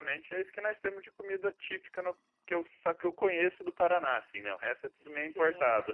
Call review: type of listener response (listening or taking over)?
taking over